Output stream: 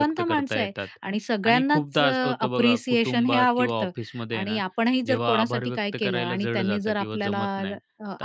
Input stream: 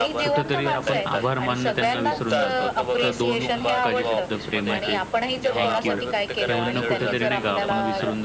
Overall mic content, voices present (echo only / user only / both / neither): both